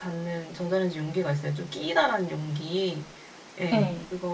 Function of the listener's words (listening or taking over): listening